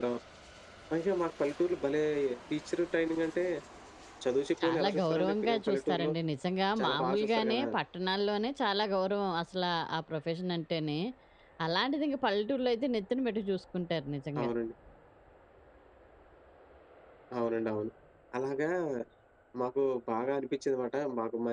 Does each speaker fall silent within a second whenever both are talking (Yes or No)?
No